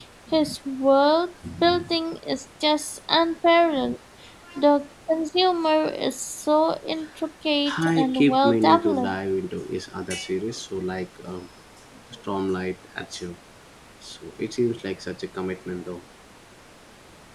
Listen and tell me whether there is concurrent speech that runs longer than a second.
Yes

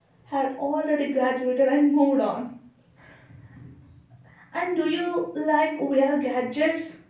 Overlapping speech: No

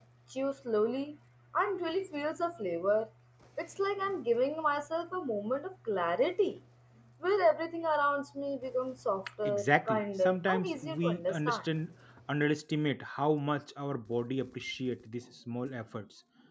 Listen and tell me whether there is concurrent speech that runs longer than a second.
Yes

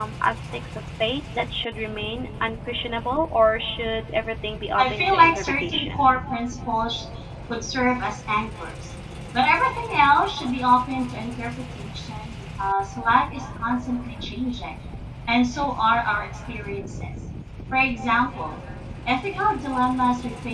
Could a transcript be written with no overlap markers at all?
No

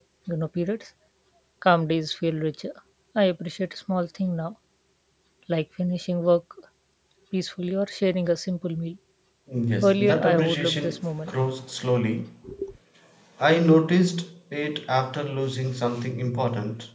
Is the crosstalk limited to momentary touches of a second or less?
No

